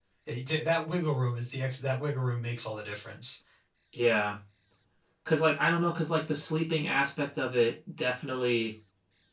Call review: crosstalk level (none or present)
none